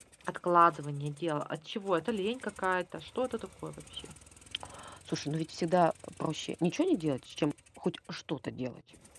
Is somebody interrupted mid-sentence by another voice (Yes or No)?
No